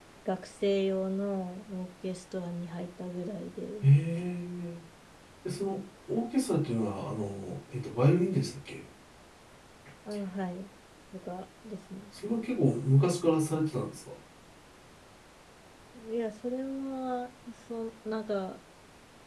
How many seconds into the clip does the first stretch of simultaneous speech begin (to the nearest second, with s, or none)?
none